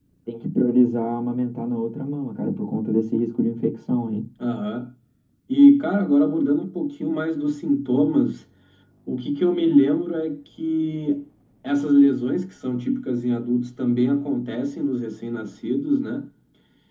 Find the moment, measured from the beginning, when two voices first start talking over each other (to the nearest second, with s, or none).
none